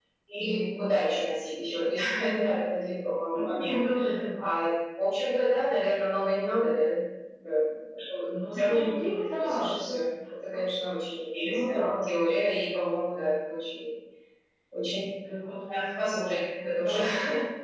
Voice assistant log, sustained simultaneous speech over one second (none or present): present